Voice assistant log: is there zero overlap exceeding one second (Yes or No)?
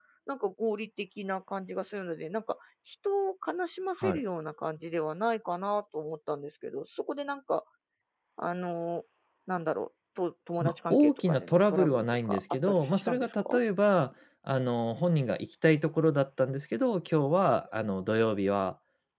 No